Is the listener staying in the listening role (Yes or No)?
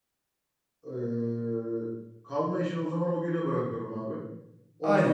No